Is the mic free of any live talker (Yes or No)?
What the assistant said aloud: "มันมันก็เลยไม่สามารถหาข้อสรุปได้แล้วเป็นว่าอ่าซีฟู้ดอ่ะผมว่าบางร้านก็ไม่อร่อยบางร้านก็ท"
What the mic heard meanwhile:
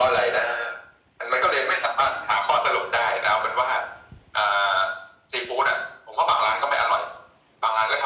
Yes